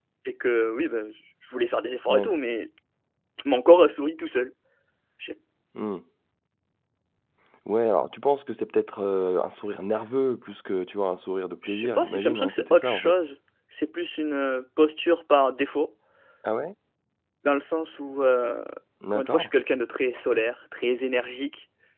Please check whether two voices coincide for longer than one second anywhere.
Yes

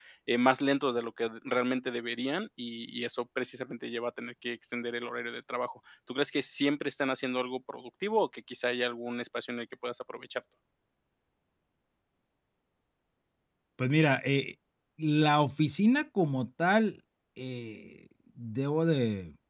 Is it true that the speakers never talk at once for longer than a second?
Yes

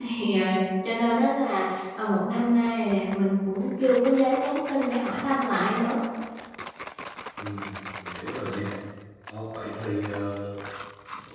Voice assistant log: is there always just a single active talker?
Yes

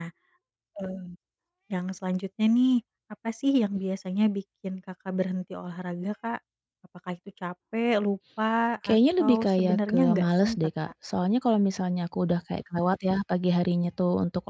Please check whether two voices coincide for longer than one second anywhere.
Yes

